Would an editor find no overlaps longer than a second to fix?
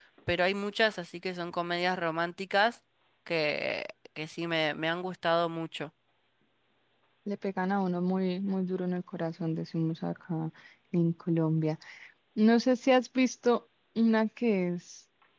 Yes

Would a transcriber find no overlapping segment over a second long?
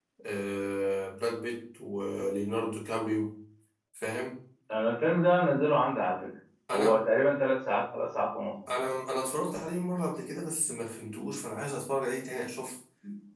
Yes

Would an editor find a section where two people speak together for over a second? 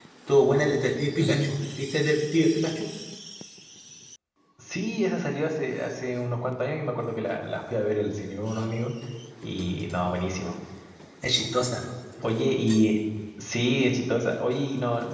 No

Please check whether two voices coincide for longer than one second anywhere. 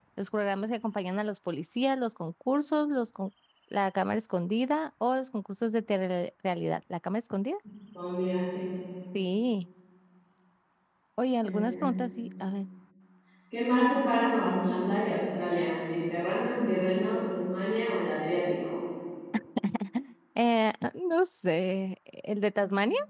No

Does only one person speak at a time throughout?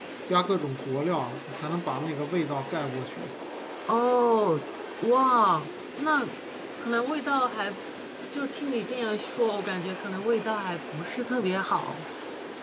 Yes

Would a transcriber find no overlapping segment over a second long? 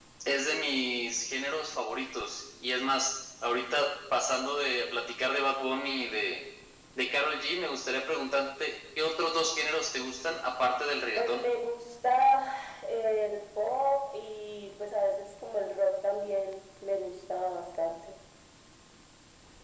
Yes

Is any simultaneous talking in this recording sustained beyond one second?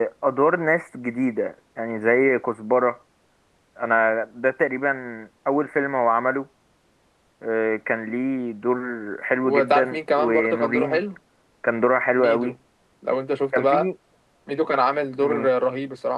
Yes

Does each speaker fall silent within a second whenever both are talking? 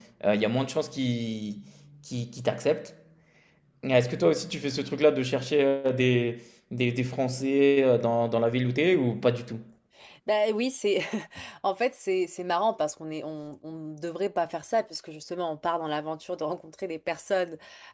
Yes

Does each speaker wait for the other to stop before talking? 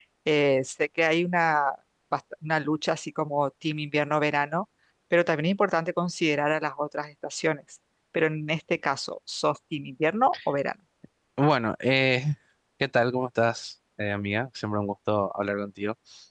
Yes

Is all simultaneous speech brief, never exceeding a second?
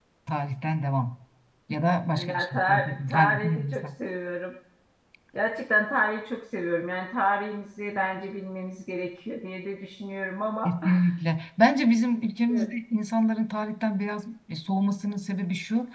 No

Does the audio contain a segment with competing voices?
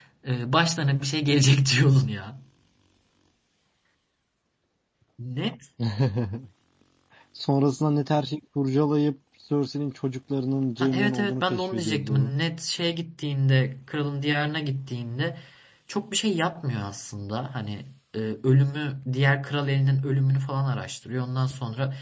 Yes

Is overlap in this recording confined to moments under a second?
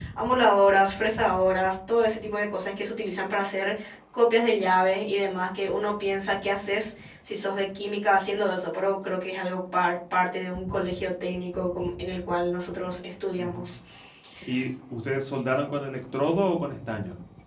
Yes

